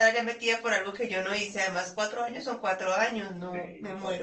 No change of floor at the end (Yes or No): No